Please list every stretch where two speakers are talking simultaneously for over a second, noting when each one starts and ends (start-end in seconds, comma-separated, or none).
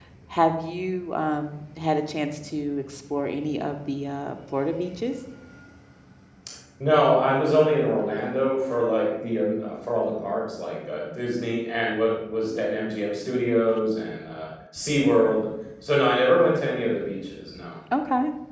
none